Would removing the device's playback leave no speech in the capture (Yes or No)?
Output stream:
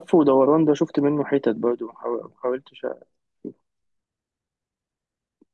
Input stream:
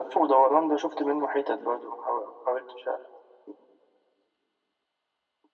Yes